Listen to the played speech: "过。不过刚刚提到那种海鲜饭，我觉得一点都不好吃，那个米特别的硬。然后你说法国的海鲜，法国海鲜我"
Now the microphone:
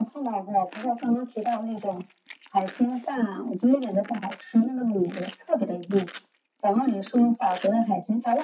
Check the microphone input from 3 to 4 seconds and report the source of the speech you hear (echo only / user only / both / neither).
echo only